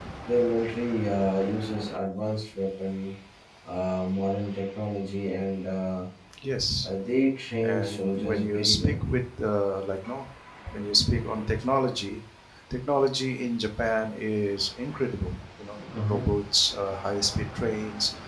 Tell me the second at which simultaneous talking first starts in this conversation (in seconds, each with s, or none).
7.6 s